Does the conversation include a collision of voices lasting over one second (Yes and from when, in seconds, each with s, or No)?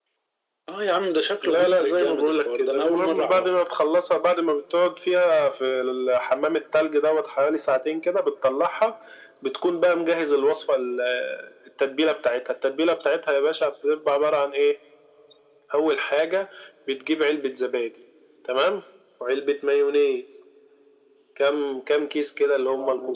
Yes, from 1.4 s